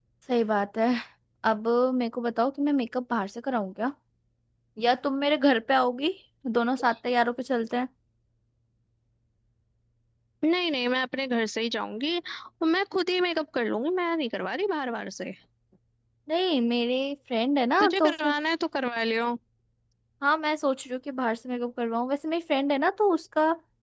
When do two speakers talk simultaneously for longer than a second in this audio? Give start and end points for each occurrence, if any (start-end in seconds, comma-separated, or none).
none